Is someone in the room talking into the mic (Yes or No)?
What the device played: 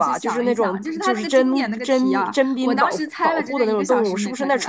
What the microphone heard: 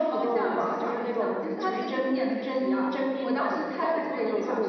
No